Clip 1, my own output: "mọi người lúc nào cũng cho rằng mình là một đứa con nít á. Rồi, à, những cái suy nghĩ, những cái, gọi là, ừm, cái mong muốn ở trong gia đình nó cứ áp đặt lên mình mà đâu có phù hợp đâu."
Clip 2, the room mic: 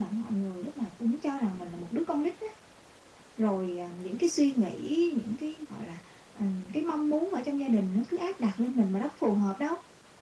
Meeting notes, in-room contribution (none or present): none